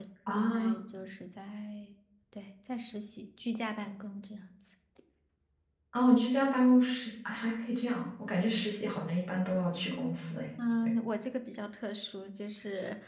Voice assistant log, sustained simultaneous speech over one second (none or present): none